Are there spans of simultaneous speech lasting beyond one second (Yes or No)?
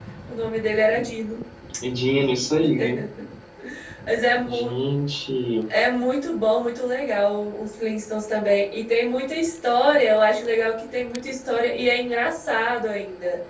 No